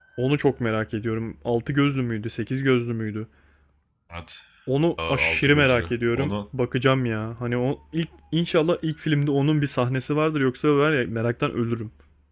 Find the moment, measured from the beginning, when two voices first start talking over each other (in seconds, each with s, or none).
5.1 s